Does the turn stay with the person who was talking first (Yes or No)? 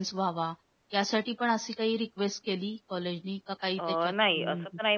No